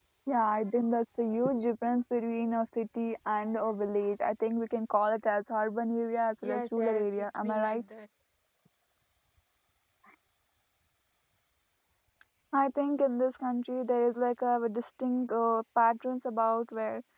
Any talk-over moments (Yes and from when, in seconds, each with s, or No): Yes, from 6.4 s